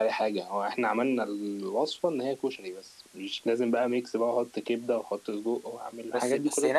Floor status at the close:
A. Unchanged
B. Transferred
B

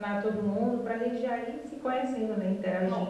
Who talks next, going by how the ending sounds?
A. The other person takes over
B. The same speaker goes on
A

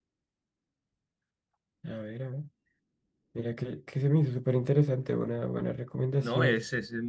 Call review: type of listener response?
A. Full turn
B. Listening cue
A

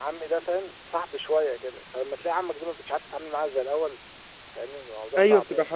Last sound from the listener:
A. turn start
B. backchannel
A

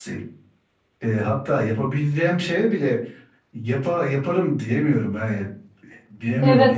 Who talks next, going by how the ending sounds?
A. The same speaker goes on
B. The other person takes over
B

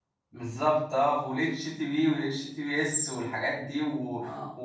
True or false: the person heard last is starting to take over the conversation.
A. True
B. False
B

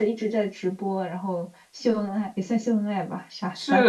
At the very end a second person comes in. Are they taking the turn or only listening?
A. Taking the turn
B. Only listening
A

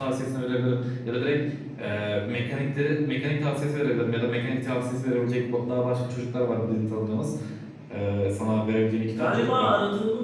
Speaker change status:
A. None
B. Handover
B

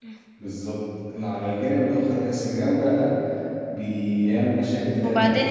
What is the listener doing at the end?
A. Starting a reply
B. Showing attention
A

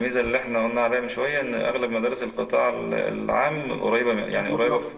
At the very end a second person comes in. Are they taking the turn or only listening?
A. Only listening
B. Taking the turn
A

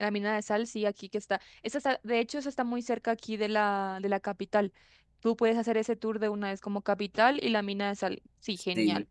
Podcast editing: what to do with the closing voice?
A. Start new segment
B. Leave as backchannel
A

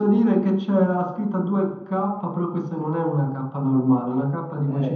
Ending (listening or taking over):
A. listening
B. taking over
B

